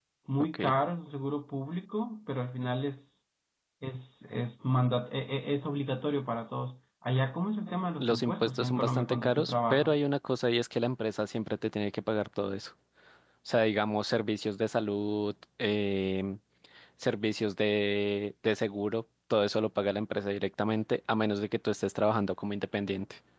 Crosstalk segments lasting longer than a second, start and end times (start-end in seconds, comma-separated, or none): 8.0-9.9